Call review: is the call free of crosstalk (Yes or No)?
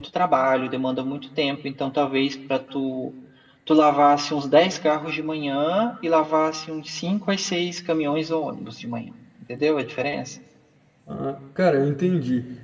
Yes